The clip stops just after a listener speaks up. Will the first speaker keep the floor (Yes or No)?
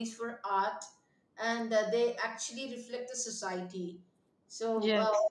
Yes